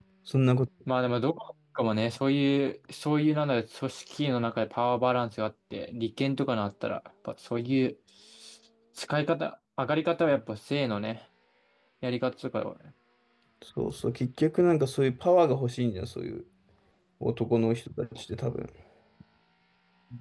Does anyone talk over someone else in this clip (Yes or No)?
No